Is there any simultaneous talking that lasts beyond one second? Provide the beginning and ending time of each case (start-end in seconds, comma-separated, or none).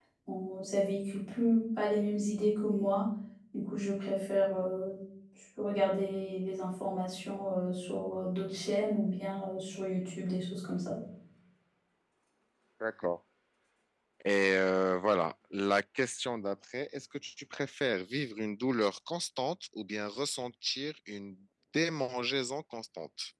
none